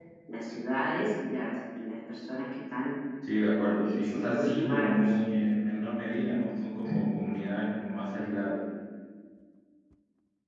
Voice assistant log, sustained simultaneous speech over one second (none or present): present